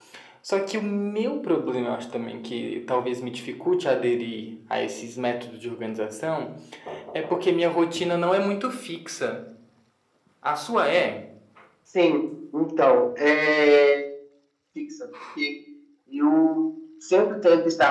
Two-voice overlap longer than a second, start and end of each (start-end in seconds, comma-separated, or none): none